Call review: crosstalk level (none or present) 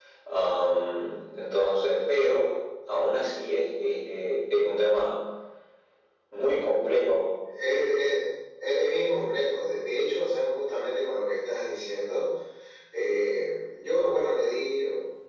none